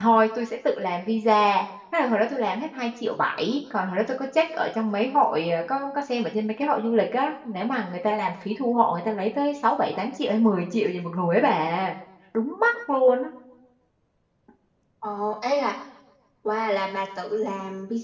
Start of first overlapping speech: none

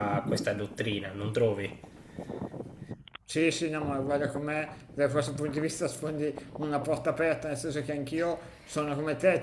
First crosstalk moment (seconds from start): none

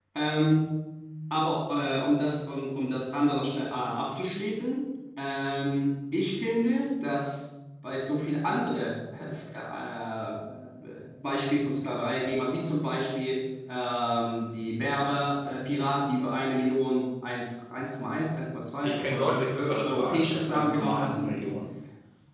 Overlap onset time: 18.8 s

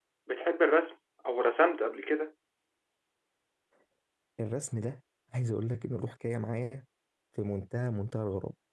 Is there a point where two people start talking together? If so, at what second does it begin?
none

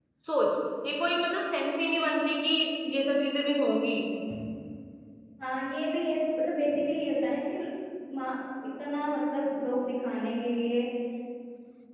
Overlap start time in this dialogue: none

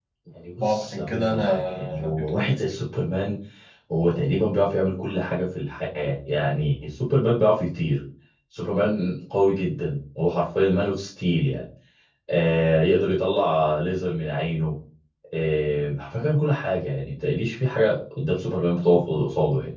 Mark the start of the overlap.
0.6 s

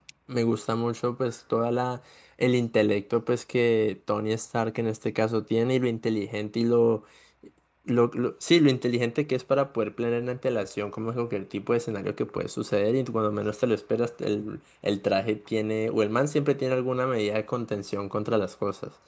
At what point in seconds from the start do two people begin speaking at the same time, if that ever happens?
none

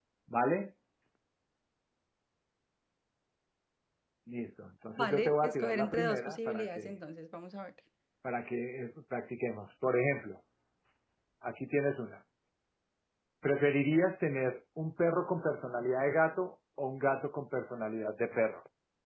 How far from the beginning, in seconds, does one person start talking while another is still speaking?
5.0 s

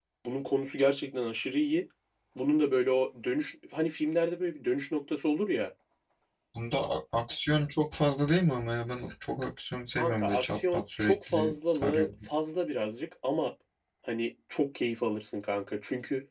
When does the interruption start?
10.0 s

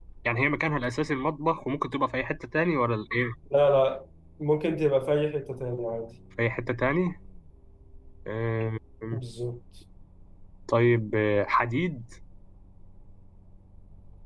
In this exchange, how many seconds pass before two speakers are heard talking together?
none

